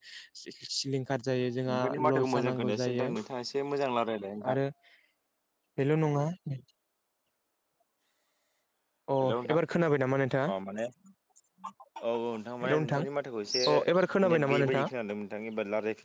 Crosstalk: present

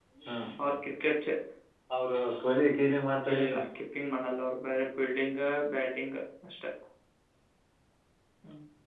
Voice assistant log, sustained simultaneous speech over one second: none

